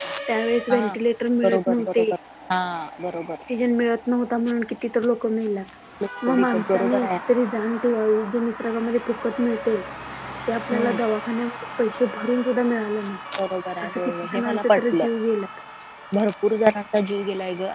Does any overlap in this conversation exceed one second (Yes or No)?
Yes